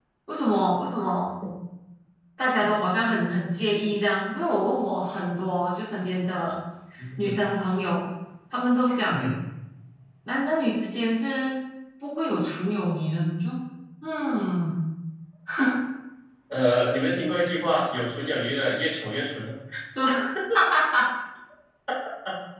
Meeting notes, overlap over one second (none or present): none